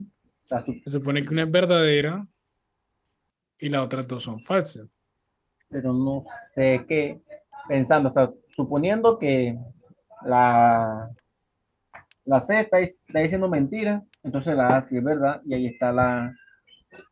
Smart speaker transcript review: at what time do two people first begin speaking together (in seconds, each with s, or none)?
none